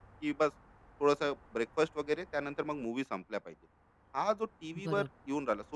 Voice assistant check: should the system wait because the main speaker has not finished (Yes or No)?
Yes